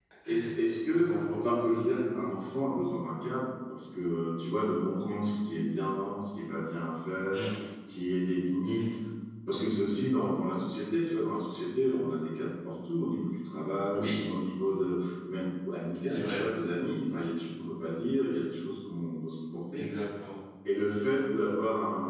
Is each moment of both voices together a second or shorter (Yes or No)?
Yes